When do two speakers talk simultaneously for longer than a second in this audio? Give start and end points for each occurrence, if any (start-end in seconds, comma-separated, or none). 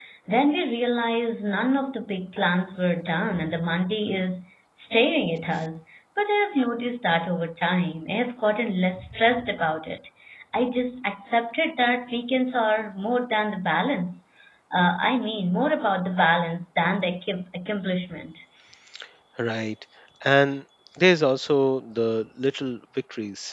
none